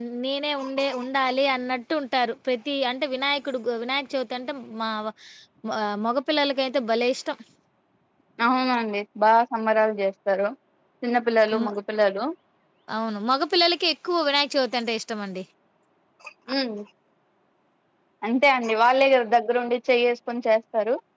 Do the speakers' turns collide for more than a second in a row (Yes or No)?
No